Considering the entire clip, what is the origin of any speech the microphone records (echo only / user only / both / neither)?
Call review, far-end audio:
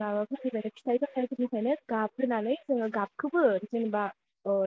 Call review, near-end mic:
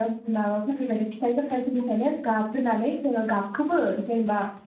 echo only